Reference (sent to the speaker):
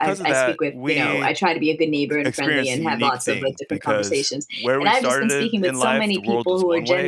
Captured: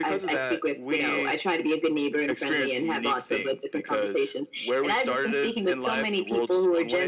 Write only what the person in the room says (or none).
none